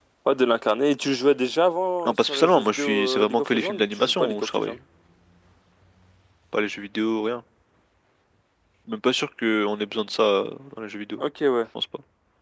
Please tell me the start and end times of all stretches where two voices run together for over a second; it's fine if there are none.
2.0-4.8

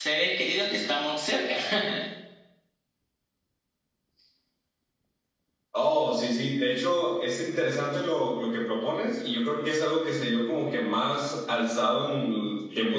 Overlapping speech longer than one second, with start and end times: none

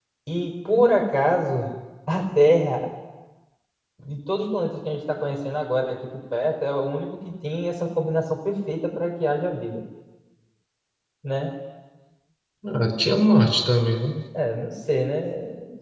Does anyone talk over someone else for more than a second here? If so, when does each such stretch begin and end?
none

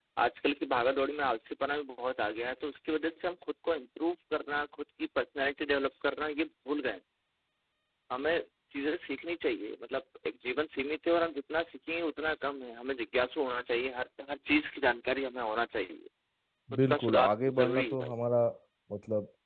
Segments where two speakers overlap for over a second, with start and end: 16.7-18.1

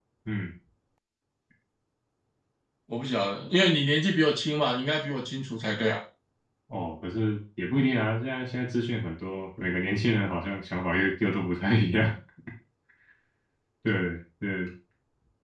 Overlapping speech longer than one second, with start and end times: none

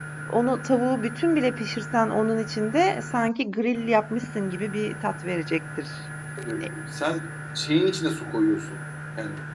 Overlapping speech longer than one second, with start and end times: none

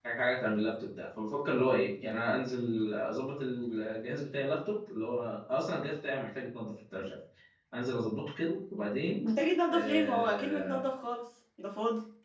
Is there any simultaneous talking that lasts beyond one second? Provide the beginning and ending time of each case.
9.7-10.9

